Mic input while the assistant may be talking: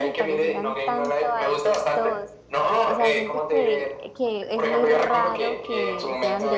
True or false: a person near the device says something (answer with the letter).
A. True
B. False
A